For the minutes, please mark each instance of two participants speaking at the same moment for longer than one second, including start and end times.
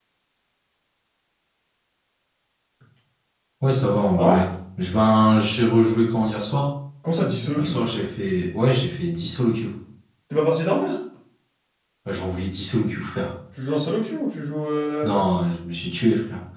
none

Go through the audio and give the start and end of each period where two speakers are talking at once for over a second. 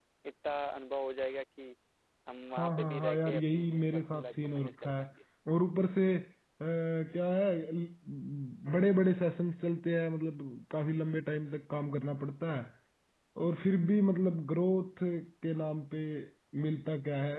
2.5-5.0

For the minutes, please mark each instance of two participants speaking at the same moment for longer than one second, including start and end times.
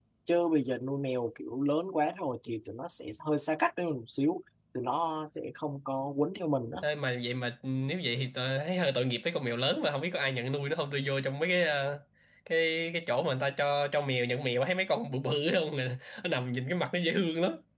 none

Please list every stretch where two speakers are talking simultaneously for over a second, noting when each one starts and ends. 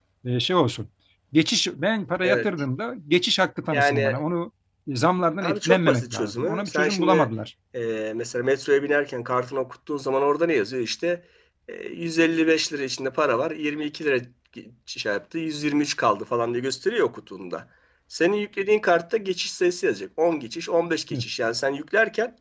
5.4-7.3

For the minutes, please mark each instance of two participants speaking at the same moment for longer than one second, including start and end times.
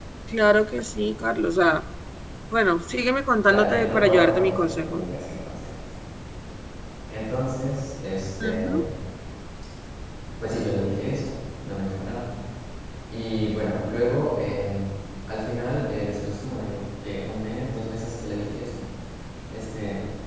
3.5-5.1

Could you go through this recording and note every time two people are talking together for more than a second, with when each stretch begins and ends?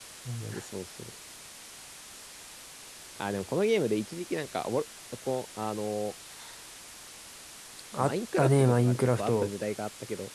8.0-9.5

